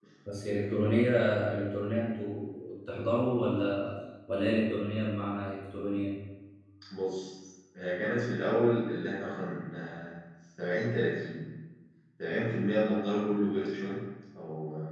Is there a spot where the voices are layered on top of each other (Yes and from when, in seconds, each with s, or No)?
No